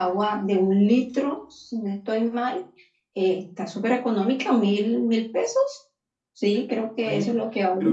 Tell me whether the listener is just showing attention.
No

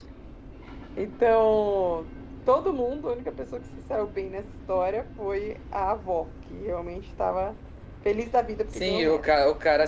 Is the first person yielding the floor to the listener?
Yes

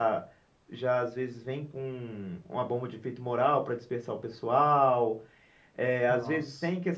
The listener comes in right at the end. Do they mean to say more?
No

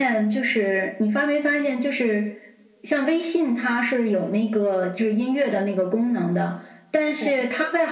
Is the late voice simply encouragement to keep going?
Yes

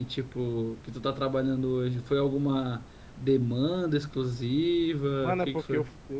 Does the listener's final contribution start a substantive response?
Yes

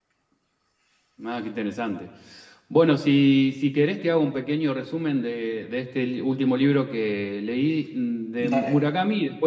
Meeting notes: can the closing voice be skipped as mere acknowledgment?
Yes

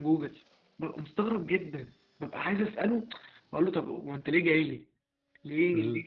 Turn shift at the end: No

